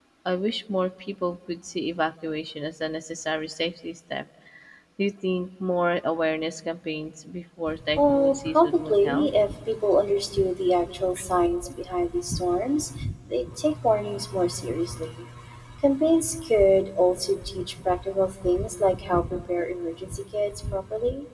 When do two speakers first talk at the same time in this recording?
8.0 s

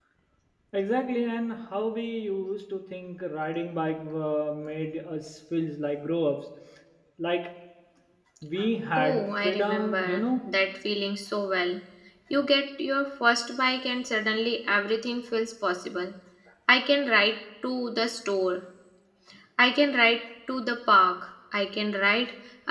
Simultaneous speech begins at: 9.0 s

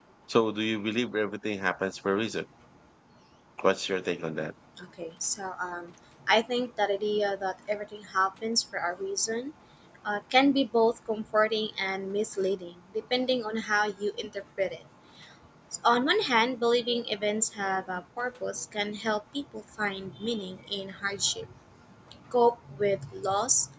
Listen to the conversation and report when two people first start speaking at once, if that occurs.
none

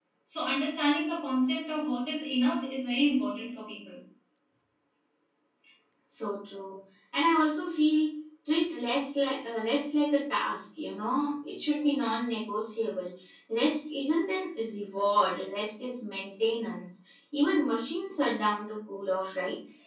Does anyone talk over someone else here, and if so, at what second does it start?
none

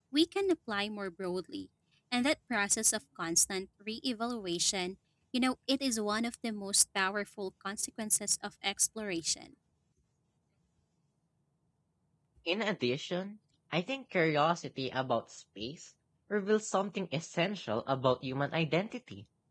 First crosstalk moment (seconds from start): none

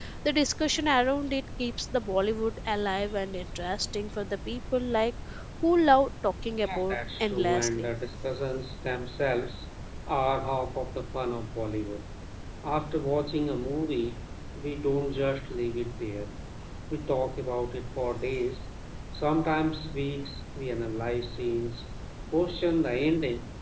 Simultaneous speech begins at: 6.6 s

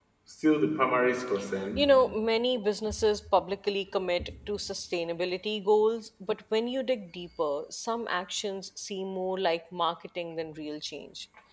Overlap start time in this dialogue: none

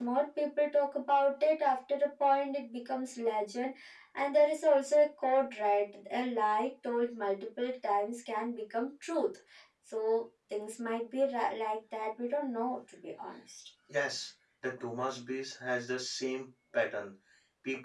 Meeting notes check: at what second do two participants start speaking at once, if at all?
none

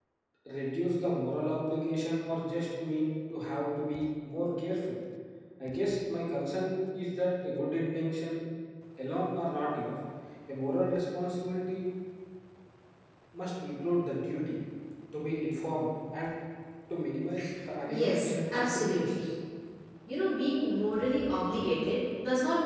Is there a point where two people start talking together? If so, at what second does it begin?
17.9 s

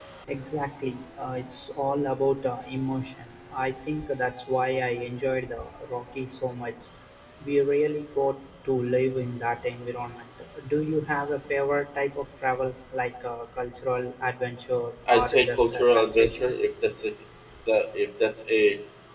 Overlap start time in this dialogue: 15.1 s

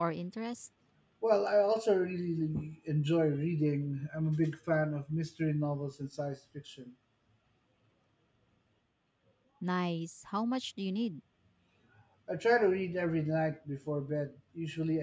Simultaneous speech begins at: none

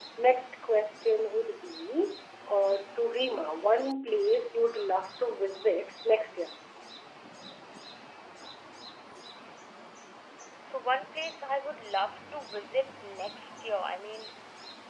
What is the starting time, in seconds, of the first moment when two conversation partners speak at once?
none

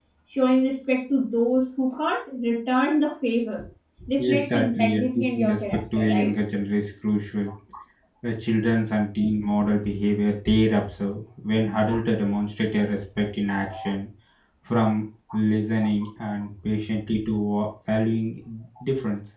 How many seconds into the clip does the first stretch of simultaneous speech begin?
4.3 s

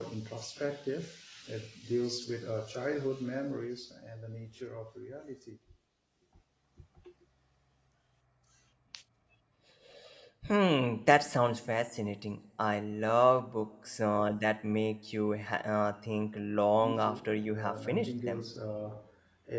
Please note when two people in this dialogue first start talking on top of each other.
16.8 s

